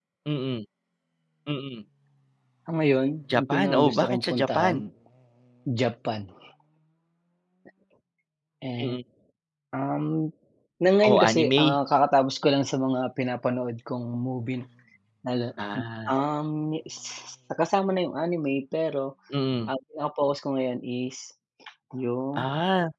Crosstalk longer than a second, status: present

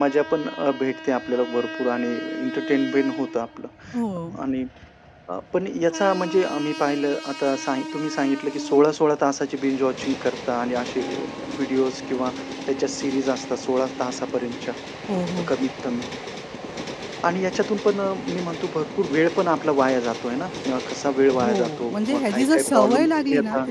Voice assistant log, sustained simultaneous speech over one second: present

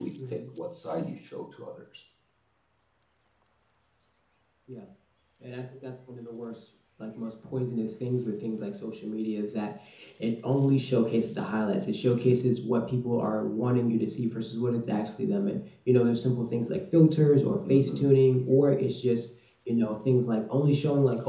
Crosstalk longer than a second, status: none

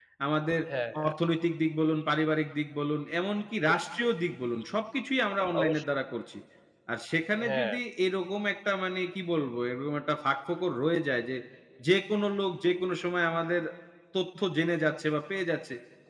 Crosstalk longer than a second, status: none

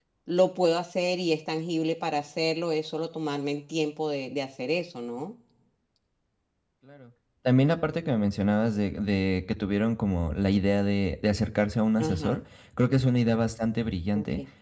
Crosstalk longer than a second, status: none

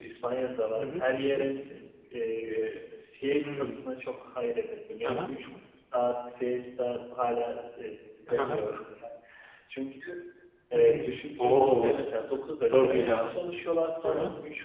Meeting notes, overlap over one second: present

